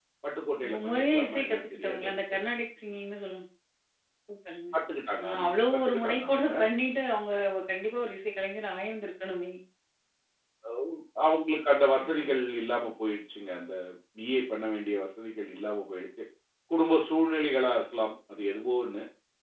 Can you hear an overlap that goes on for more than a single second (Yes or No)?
Yes